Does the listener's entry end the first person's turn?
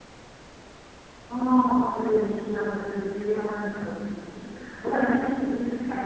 No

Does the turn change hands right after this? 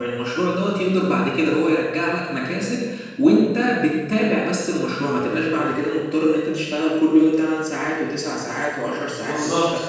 No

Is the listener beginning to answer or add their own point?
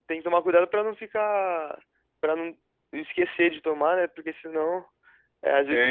No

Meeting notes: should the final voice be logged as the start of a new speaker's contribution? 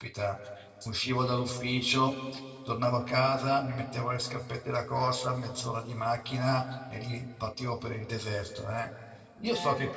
No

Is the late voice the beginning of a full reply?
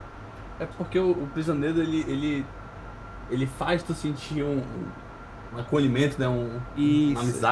Yes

